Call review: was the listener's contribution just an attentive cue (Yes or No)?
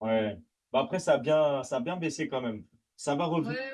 No